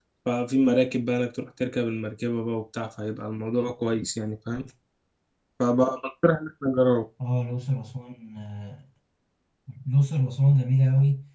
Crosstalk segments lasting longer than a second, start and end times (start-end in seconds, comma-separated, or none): none